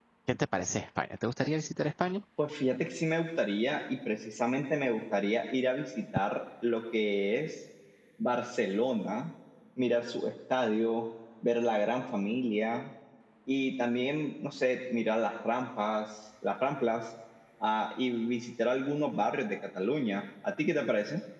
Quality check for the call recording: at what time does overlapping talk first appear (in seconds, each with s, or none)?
none